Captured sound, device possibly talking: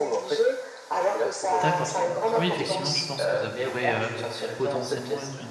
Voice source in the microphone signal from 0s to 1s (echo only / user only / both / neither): echo only